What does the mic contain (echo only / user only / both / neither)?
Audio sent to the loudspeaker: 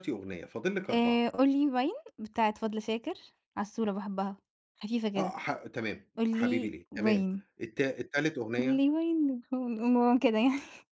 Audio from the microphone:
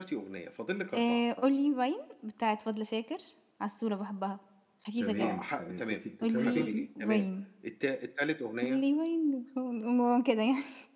both